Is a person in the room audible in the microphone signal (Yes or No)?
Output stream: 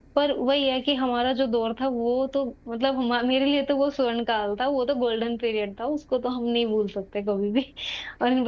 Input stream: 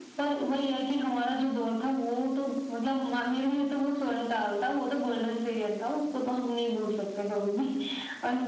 No